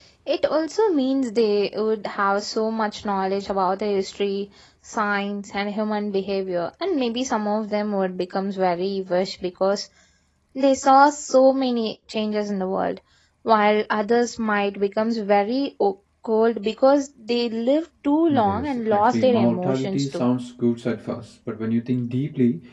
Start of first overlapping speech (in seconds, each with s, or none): 18.3 s